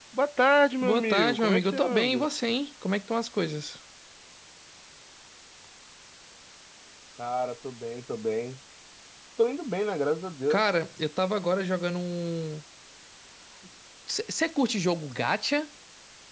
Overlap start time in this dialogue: 0.8 s

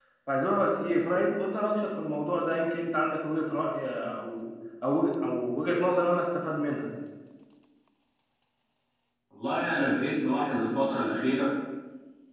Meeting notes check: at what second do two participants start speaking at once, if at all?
none

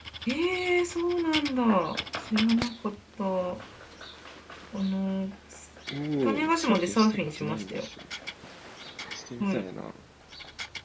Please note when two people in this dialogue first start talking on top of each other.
6.2 s

